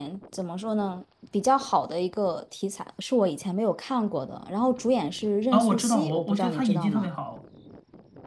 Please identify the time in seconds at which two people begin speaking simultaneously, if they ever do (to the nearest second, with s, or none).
6 s